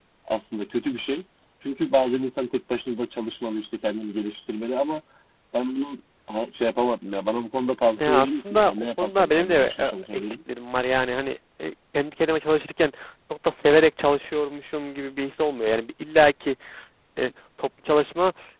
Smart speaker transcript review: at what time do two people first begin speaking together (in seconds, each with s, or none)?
8.0 s